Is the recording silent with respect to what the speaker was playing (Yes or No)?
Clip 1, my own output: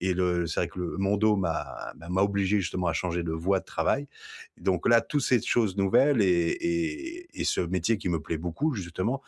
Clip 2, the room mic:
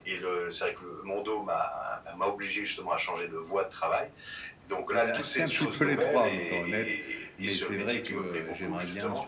No